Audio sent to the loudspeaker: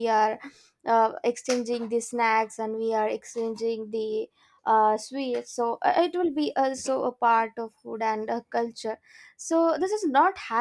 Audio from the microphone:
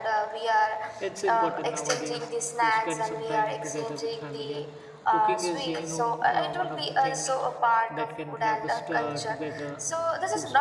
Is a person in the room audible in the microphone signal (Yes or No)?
Yes